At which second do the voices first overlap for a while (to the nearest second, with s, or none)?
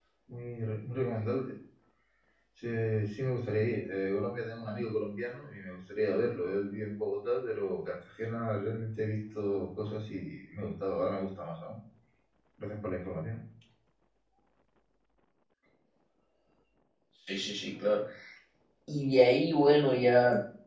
none